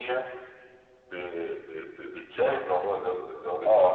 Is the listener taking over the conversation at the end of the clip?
No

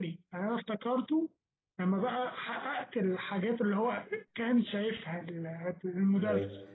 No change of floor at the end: No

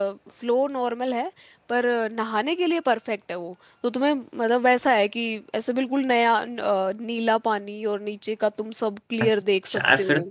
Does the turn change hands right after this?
Yes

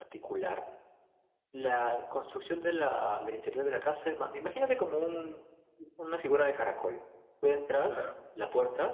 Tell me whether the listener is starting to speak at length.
No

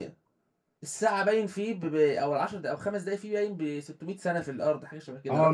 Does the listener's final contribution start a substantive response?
Yes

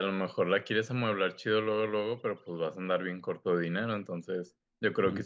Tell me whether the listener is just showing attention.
Yes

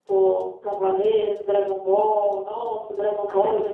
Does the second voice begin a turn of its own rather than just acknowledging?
No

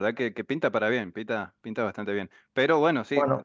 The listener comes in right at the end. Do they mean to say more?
No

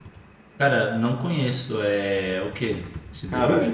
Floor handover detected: Yes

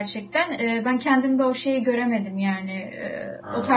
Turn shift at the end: No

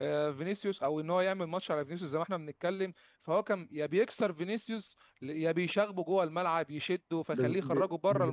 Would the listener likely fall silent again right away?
No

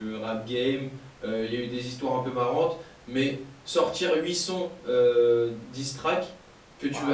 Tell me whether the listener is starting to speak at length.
Yes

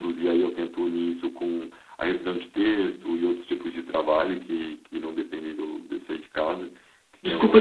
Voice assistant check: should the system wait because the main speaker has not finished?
No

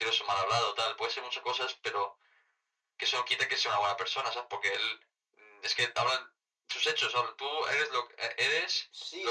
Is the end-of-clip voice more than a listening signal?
Yes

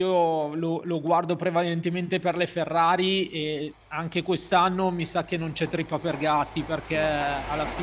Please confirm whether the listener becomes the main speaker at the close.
No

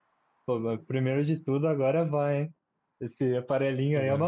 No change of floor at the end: Yes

